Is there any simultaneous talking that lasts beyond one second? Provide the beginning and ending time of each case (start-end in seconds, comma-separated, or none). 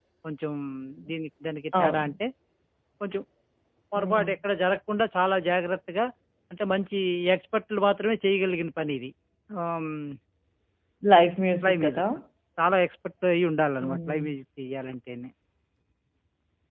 none